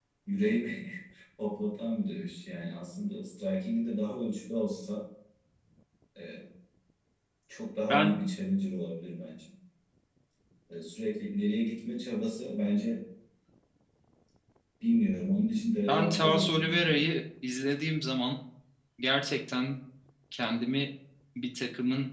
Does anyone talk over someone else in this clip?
Yes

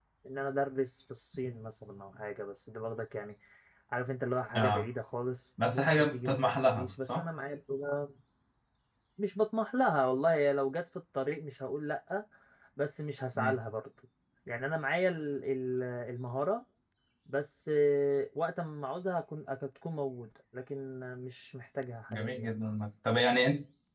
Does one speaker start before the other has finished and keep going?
Yes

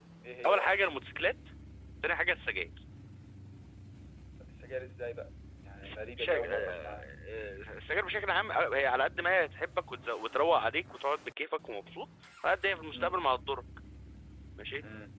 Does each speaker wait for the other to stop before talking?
No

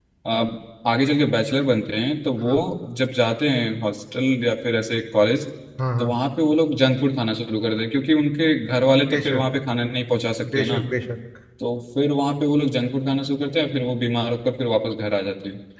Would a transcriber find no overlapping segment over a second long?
Yes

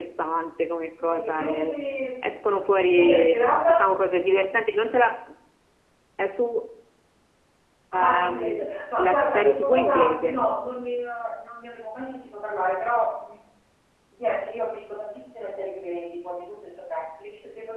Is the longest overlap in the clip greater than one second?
Yes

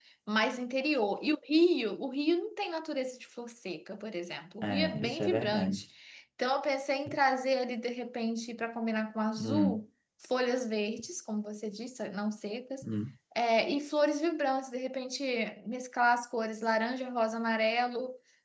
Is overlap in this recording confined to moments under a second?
No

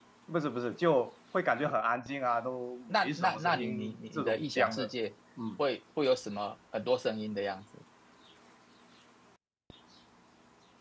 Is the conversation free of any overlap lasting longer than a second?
No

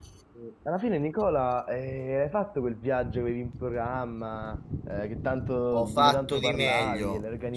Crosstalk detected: Yes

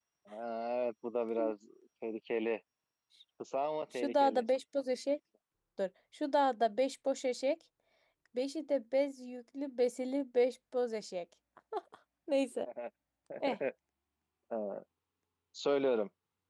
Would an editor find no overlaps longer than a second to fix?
Yes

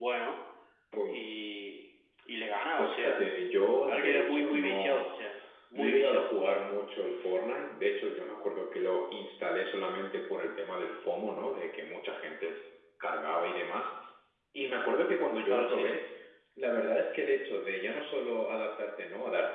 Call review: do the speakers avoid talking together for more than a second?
No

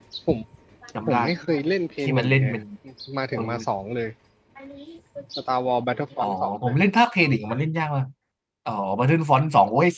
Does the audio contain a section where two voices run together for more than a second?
No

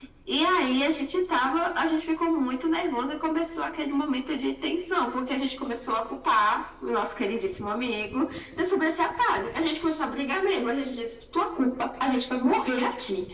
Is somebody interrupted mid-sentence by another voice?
No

